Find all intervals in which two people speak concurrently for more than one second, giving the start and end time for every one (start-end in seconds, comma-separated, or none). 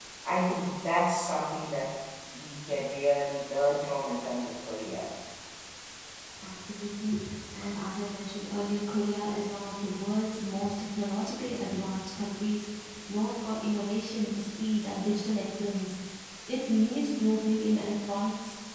none